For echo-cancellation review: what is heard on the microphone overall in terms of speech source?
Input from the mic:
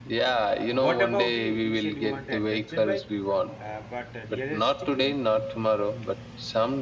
both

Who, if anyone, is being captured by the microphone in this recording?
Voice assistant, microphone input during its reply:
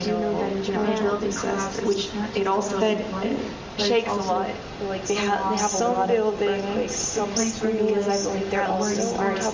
both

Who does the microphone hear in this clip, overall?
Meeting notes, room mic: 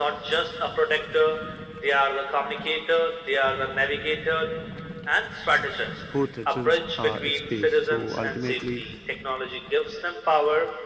both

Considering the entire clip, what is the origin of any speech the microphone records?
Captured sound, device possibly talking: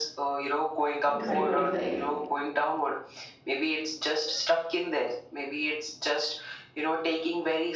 both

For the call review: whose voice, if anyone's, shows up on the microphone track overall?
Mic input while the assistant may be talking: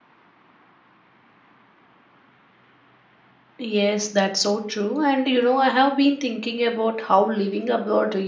user only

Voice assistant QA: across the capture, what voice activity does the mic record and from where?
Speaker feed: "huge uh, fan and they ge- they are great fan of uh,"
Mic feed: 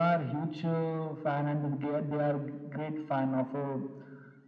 echo only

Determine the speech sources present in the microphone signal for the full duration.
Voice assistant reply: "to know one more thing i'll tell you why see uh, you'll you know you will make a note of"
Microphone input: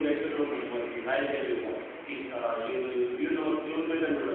echo only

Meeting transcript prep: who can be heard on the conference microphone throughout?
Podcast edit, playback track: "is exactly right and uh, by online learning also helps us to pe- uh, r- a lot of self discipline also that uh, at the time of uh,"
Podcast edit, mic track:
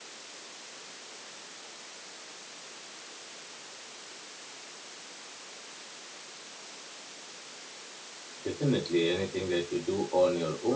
user only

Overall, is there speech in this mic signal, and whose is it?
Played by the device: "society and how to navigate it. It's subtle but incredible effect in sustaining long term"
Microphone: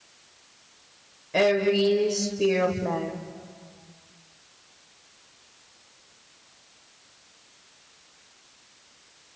user only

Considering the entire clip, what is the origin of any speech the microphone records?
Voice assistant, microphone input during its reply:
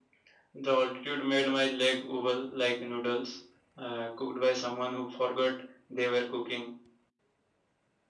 echo only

